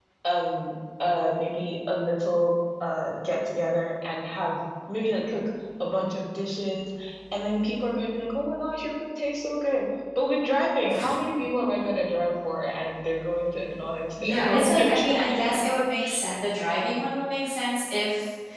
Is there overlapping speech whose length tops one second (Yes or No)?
Yes